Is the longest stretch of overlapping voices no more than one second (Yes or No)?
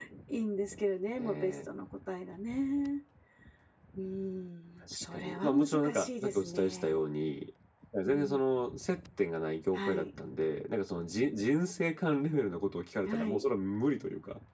No